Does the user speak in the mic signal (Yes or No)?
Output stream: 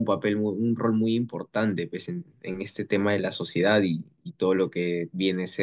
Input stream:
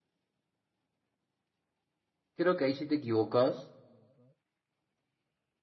Yes